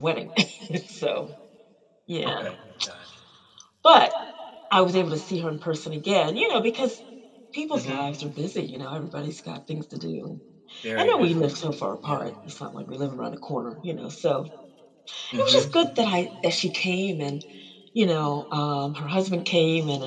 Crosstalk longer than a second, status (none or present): none